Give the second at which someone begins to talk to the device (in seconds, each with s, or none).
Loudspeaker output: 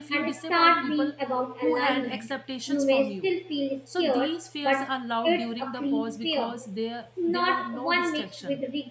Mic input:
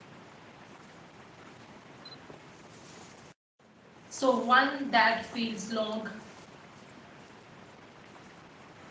4.1 s